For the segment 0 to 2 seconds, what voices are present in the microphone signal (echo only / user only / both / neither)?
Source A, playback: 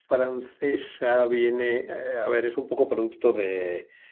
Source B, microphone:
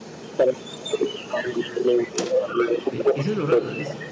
echo only